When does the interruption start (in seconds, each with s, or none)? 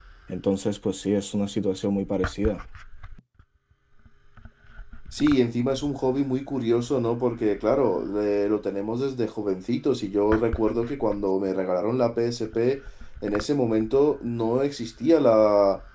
none